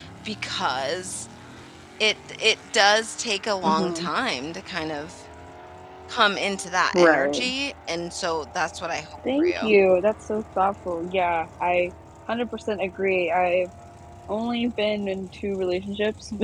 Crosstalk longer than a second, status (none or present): none